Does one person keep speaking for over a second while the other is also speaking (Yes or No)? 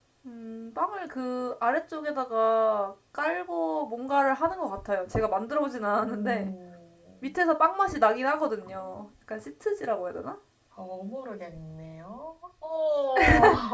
No